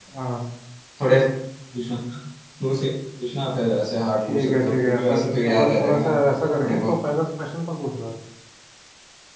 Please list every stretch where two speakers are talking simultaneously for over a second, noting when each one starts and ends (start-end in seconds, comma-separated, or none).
4.3-6.1